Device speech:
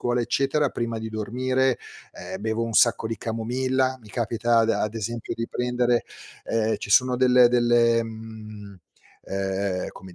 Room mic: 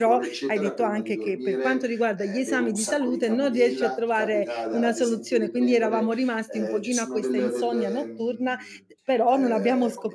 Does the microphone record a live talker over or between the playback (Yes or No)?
Yes